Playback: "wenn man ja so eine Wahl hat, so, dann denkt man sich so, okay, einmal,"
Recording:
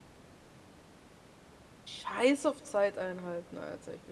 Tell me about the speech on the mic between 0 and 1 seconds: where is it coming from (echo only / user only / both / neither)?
neither